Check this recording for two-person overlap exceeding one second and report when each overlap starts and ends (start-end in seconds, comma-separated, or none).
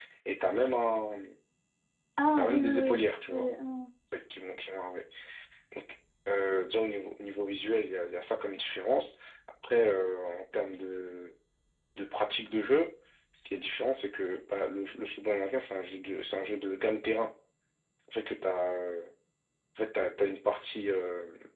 2.3-3.5